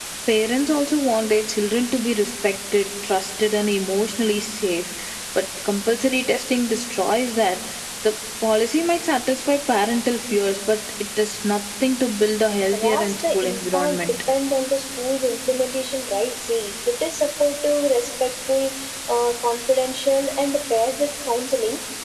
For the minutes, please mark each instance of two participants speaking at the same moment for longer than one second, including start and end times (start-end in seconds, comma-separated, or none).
12.4-14.2